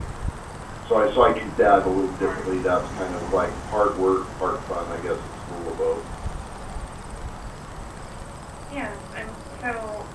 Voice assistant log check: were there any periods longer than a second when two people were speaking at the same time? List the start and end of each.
none

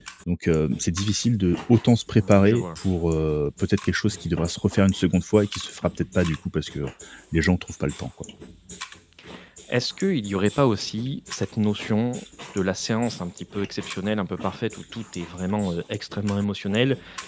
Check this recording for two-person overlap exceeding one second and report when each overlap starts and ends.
none

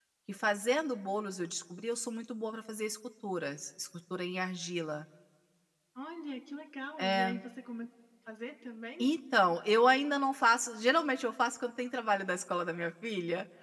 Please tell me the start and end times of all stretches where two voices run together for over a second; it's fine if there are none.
none

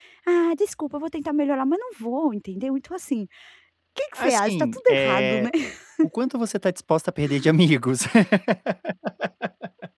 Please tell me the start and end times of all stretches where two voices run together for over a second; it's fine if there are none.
4.2-5.5

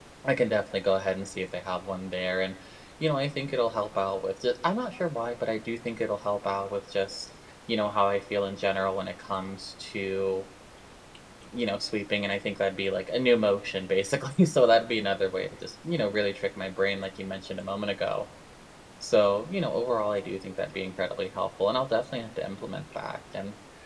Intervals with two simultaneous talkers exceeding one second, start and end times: none

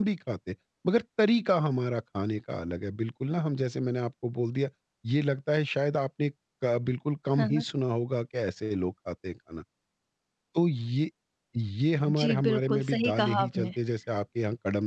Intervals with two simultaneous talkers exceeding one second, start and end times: 12.1-13.7

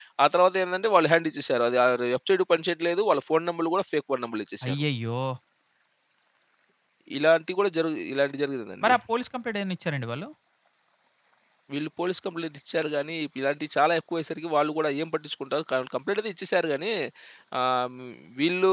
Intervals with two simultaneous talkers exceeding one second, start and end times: none

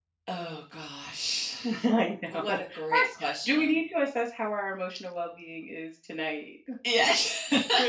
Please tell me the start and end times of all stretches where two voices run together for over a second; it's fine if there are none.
2.3-3.8

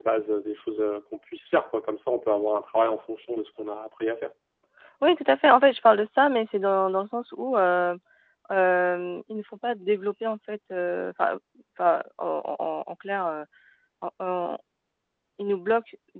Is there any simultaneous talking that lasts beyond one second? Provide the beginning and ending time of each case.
none

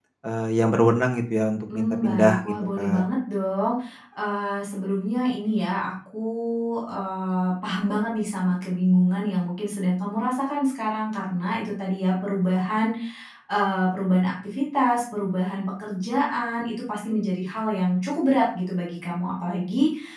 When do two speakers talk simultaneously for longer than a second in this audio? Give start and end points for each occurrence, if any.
1.7-3.0

